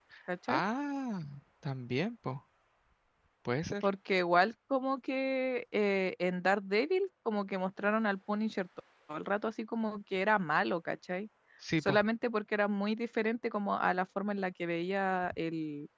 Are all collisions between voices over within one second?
Yes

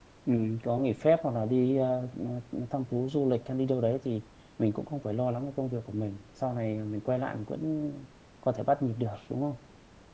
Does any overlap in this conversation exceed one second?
No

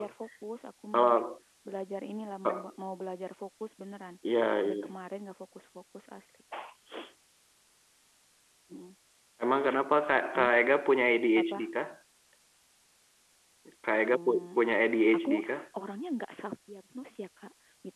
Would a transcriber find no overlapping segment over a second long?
Yes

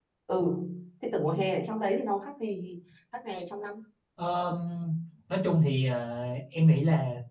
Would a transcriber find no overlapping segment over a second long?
Yes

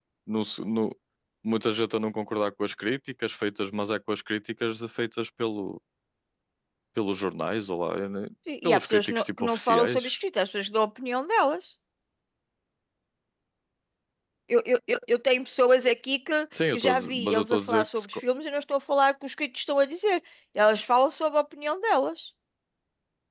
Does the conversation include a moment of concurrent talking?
Yes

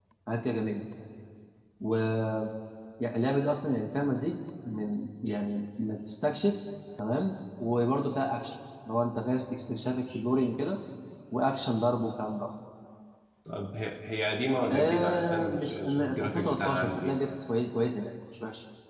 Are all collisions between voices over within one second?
No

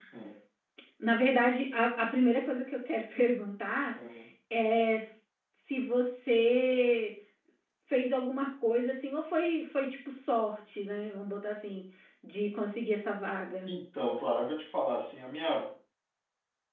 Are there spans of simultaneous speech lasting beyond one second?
No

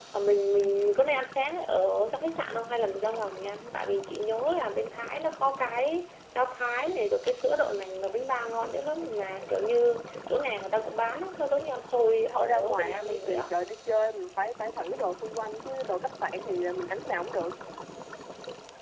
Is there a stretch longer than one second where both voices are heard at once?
Yes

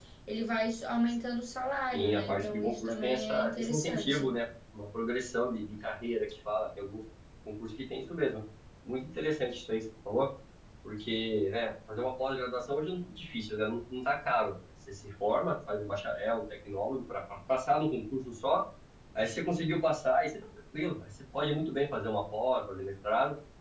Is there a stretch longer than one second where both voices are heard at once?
Yes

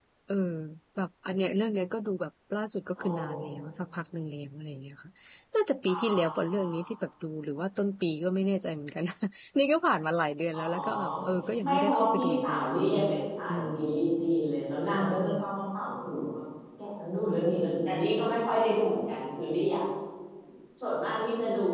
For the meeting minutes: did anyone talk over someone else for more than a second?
Yes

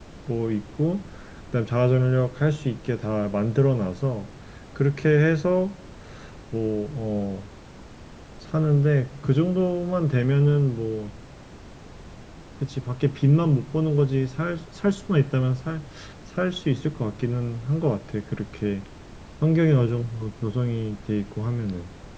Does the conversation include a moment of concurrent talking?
No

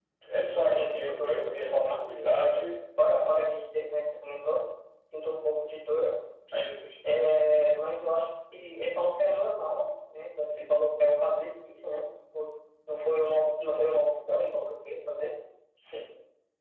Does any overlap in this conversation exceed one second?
Yes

